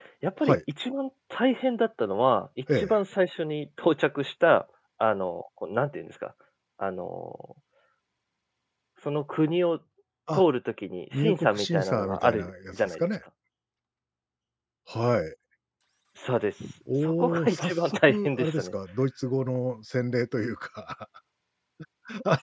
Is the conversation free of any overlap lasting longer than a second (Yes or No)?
No